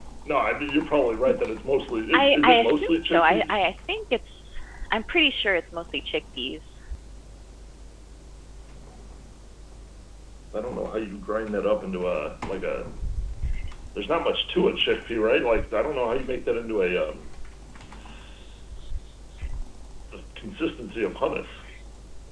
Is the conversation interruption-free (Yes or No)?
No